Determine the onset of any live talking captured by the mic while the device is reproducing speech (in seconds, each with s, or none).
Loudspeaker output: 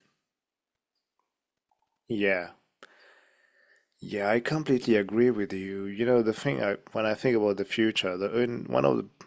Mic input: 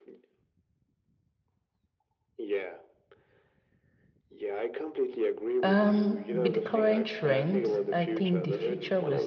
5.6 s